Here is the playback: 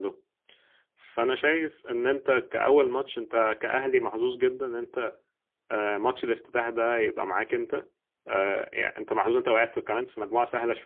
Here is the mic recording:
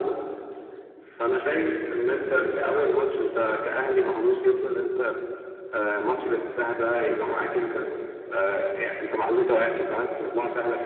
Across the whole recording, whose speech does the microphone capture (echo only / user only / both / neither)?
echo only